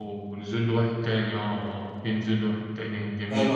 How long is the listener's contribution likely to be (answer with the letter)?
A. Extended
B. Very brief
A